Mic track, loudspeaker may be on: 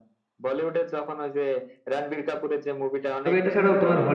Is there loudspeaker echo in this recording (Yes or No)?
Yes